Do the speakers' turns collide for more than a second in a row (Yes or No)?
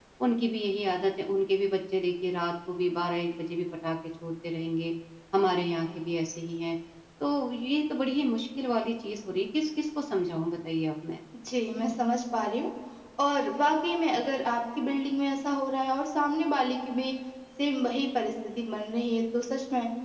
No